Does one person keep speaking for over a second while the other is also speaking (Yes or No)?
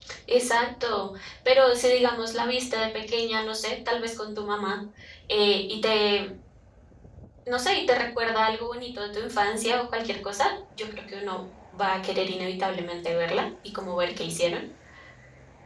No